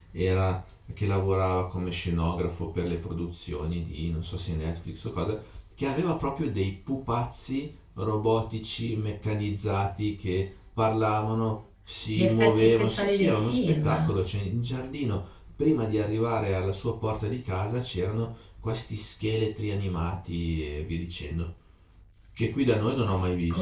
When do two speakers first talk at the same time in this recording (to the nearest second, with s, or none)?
12 s